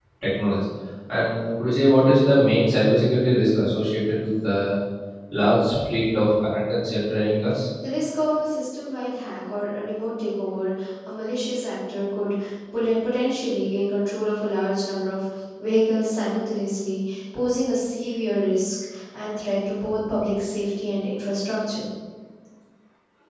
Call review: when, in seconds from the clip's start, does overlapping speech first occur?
none

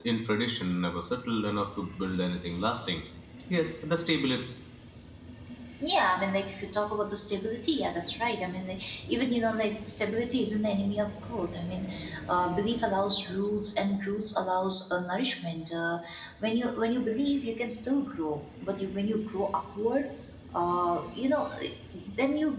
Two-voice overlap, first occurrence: none

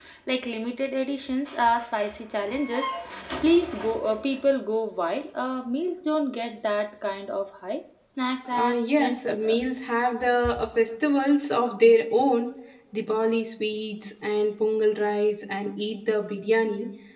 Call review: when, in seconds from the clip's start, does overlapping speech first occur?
8 s

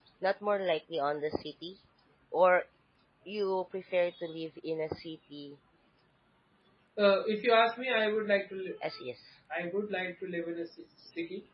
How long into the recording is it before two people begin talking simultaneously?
none

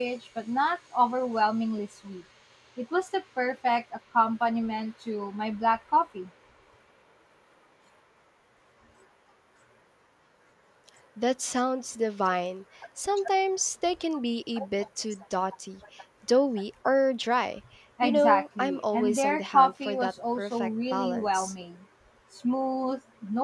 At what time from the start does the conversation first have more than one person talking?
18 s

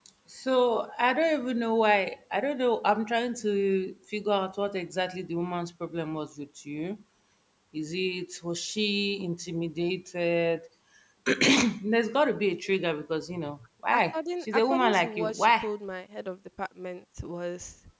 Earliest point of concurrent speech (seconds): 14 s

